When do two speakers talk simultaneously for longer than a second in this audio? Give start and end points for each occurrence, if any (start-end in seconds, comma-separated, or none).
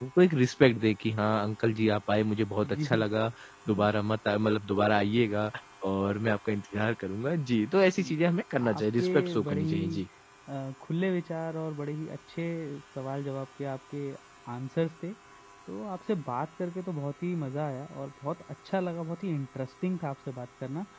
8.6-10.0